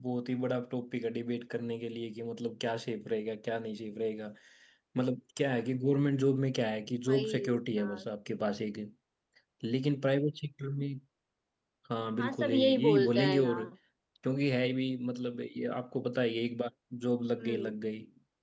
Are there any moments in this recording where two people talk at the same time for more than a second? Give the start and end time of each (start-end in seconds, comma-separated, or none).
12.2-13.6